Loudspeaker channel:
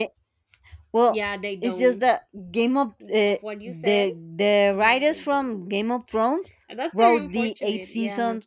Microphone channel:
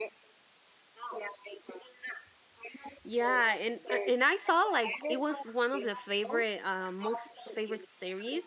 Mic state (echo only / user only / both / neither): both